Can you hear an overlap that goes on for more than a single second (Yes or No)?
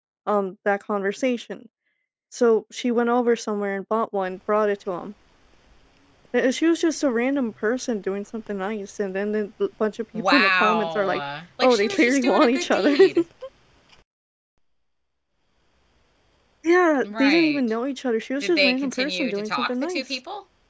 Yes